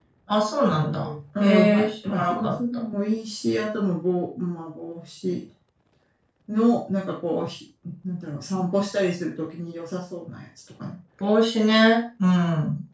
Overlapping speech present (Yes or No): Yes